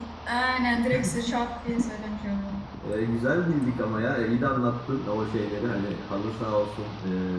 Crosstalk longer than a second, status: none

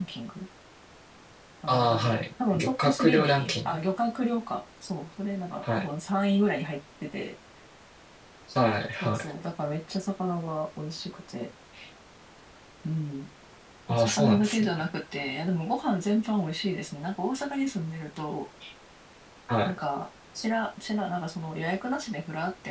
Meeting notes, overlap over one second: present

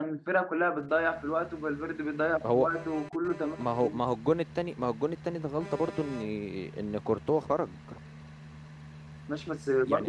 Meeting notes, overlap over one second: none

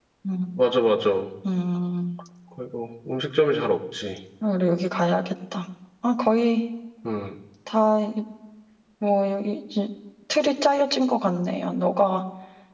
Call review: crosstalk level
none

